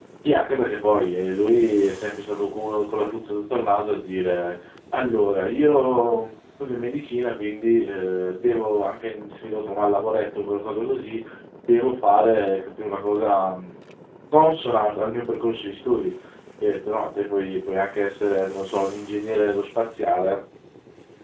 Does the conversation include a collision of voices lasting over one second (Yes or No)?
No